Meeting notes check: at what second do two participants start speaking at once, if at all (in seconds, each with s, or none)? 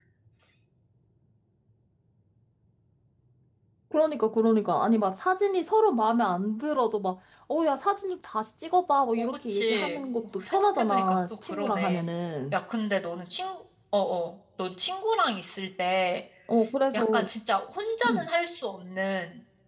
9.2 s